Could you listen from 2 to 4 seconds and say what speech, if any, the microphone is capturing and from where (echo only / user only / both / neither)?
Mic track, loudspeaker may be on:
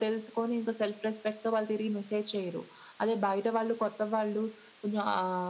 echo only